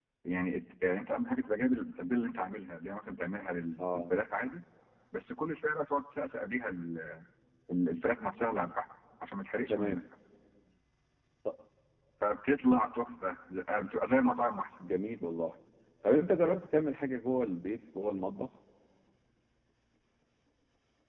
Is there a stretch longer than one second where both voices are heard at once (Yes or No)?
No